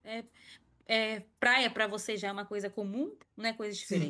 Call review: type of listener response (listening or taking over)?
taking over